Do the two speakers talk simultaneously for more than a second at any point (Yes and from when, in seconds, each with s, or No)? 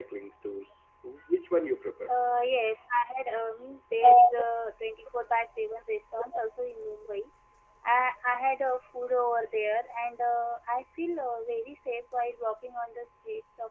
No